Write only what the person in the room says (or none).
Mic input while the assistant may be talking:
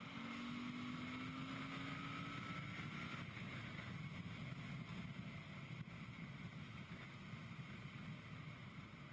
none